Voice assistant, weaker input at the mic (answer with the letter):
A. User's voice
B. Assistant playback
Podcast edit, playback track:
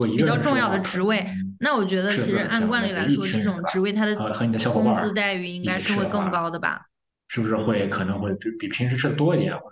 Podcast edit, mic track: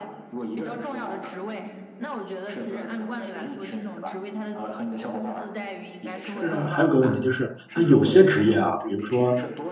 B